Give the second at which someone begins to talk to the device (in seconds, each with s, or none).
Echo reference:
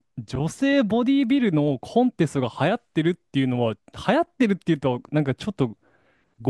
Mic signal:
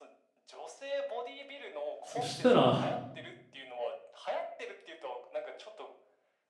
2.0 s